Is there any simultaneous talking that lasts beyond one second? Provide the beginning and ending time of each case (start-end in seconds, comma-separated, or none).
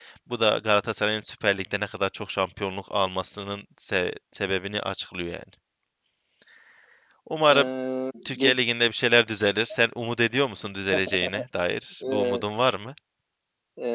none